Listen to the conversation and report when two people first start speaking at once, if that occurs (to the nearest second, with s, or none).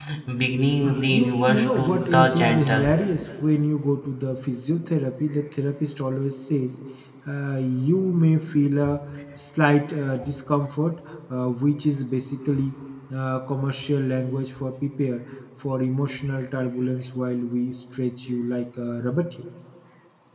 1 s